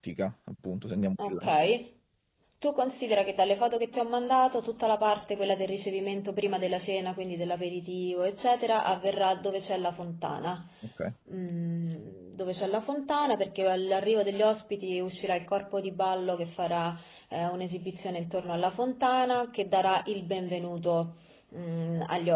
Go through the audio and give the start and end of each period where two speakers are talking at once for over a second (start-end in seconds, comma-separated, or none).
none